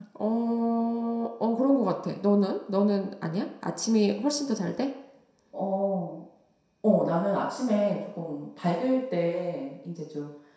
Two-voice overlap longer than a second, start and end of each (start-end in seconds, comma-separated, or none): none